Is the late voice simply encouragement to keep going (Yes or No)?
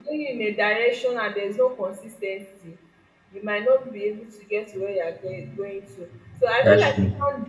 Yes